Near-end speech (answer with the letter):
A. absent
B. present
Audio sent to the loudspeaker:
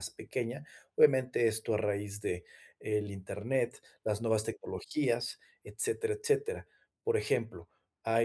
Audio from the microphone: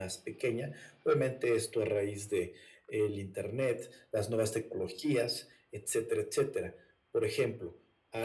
A